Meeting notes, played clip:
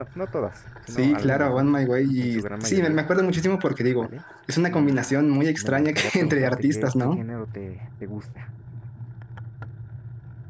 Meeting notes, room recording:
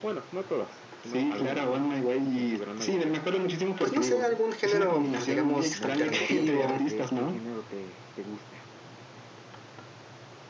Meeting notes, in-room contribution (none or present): present